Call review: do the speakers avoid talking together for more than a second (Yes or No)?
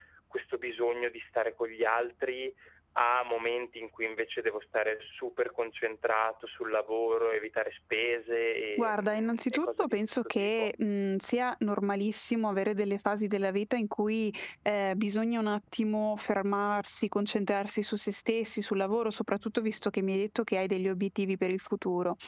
No